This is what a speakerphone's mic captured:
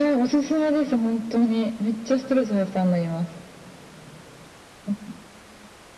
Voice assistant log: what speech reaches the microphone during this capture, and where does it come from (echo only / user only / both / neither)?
echo only